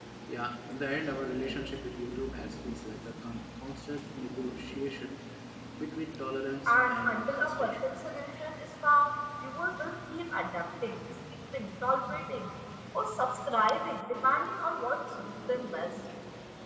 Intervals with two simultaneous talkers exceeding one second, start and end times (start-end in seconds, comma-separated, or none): 6.7-7.9